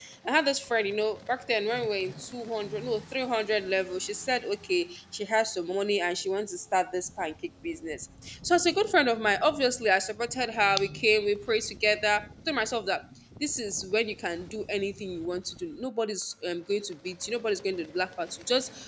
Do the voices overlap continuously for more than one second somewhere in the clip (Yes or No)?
No